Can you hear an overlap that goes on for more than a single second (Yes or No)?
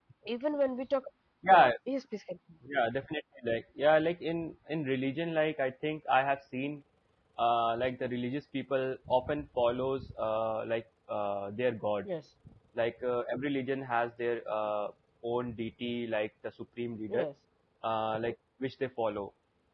No